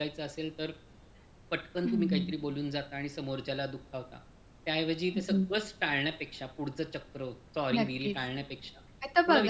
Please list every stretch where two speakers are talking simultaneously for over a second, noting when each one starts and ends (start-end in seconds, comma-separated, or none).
none